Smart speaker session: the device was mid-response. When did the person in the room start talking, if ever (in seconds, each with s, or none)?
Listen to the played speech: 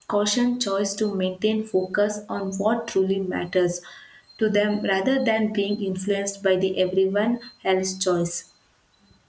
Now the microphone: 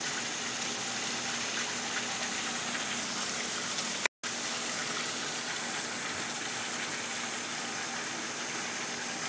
none